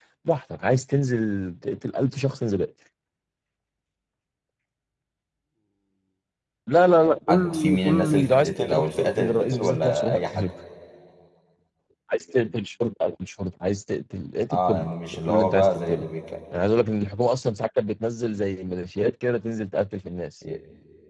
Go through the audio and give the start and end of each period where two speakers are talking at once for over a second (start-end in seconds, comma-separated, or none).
7.3-10.4, 14.5-16.0